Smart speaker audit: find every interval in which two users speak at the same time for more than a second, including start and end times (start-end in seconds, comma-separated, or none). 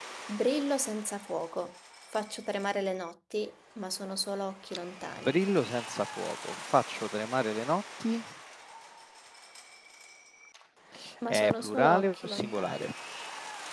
11.3-12.9